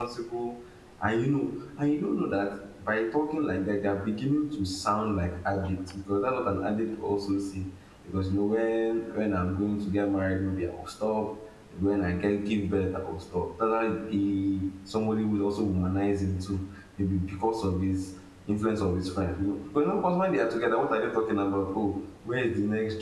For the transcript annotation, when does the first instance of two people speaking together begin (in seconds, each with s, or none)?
none